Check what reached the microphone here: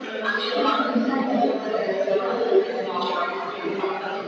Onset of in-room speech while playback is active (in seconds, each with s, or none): none